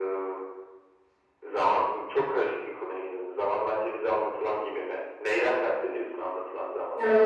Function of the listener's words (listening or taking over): taking over